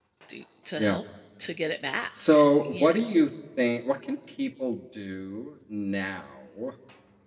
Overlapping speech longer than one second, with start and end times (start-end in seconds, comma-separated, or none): none